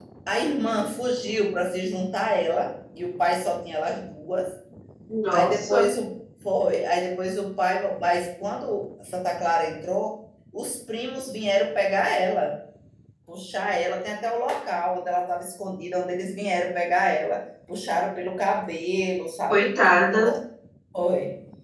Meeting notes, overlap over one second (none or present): none